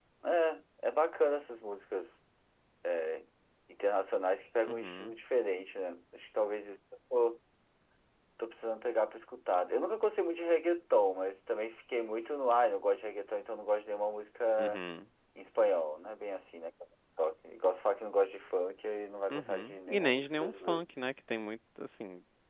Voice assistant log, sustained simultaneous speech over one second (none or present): present